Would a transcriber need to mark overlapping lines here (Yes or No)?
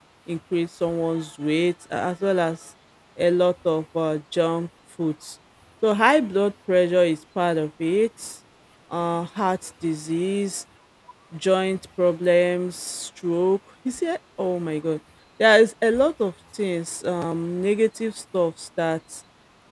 No